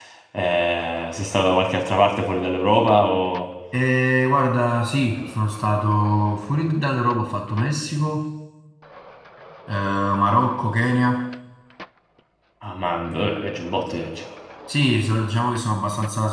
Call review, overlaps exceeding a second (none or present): none